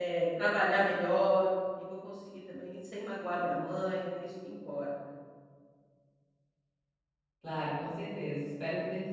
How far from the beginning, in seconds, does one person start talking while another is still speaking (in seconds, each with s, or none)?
none